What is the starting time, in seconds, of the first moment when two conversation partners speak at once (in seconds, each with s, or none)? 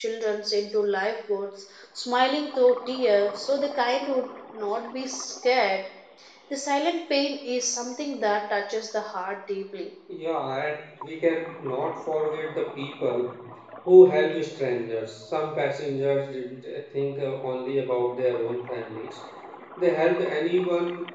none